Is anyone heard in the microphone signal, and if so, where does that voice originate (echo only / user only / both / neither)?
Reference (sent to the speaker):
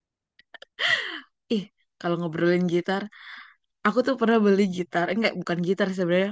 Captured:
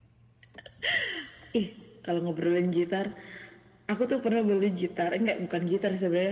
echo only